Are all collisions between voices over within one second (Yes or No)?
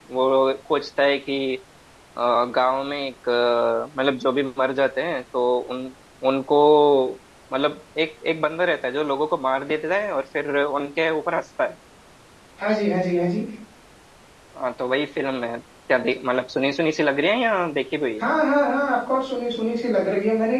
Yes